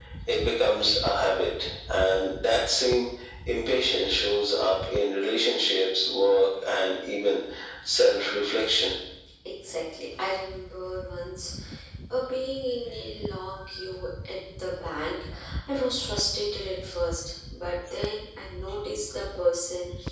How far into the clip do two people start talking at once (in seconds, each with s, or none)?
none